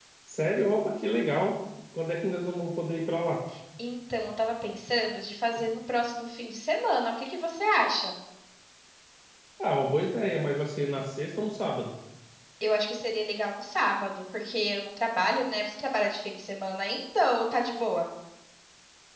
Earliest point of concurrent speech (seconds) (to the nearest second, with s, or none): none